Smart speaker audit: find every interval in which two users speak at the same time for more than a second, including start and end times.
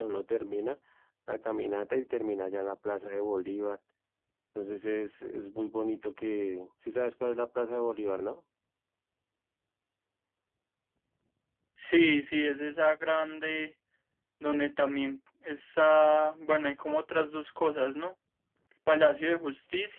none

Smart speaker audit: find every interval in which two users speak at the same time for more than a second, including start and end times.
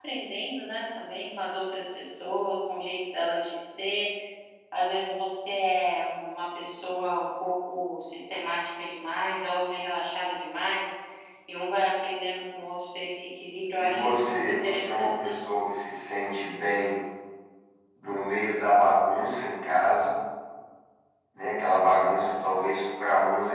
13.8-15.3

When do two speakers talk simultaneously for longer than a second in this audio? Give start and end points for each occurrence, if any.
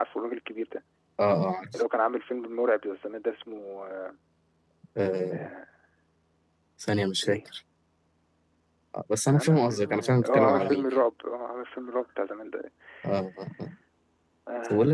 9.3-11.0

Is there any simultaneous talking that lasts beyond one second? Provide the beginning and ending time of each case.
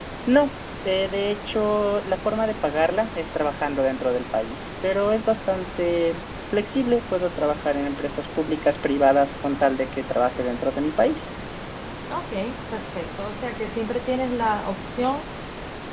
none

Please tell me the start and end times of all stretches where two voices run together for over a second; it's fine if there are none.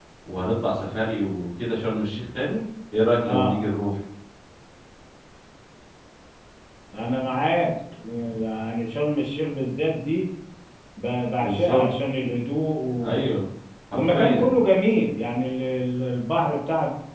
none

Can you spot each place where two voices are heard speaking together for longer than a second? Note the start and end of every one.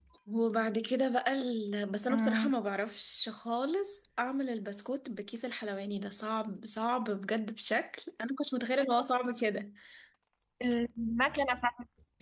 none

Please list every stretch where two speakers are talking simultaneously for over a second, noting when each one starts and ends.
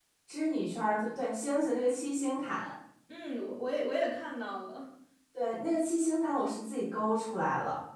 none

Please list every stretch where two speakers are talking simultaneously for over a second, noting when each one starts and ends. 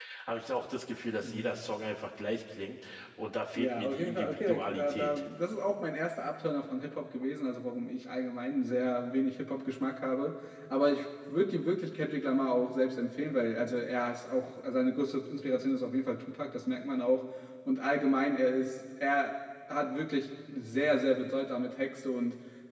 3.6-5.1

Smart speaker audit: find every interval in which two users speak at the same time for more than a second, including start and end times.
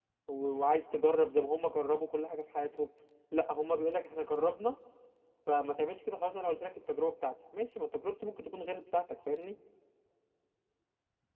none

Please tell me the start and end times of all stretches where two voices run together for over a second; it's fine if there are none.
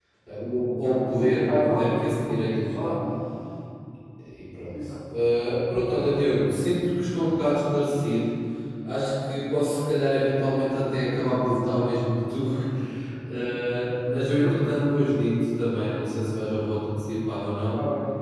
1.2-3.0

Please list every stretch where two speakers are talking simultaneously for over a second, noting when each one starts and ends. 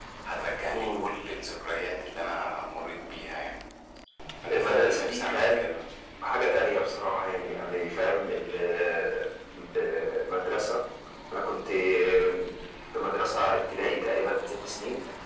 4.5-5.7

